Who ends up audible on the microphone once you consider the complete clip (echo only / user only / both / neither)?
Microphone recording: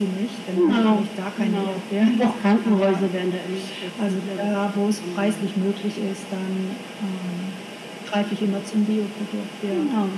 echo only